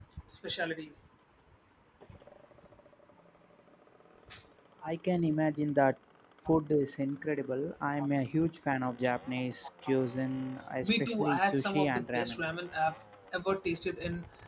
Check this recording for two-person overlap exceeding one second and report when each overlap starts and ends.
10.8-12.4

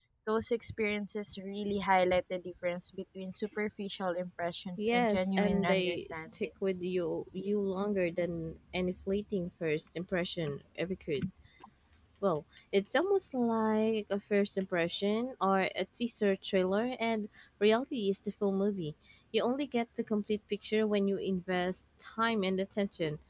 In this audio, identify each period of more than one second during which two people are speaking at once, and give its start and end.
4.8-6.3

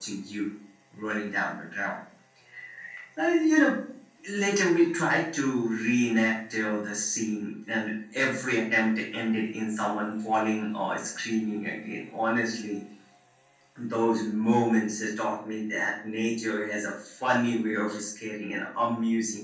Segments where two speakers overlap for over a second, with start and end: none

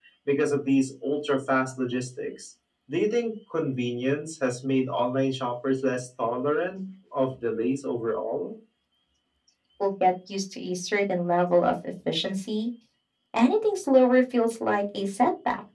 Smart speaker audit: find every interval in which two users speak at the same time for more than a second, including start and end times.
none

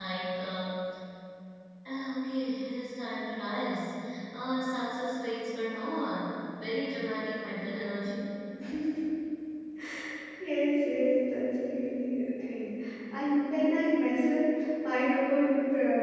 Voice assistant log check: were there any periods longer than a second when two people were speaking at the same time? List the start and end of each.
none

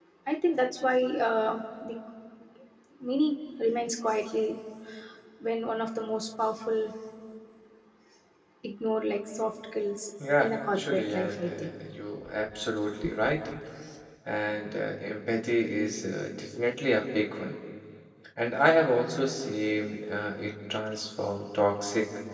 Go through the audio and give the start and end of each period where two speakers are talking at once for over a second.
10.4-11.7

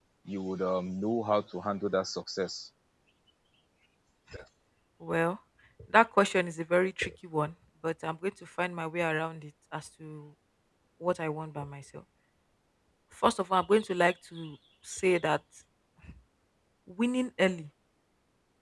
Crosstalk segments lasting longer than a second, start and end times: none

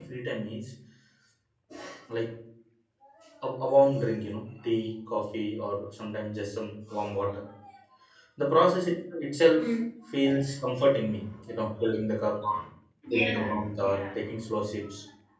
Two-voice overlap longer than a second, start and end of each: 13.1-14.3

